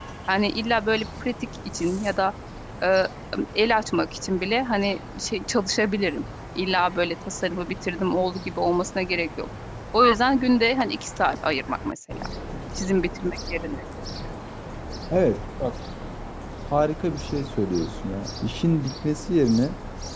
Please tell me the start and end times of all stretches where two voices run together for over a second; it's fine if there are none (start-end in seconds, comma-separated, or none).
none